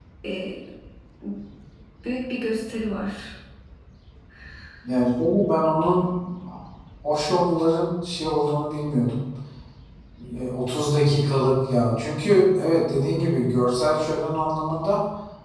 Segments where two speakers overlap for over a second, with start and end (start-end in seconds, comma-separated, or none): none